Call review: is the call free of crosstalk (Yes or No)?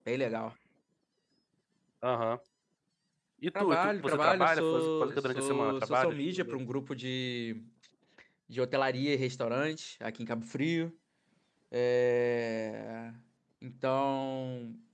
No